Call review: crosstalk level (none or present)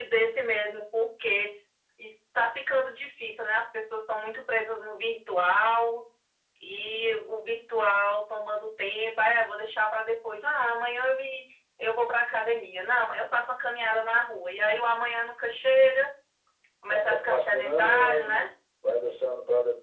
present